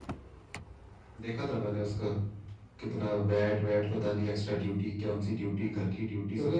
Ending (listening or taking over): taking over